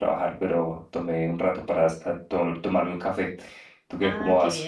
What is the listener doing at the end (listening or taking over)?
taking over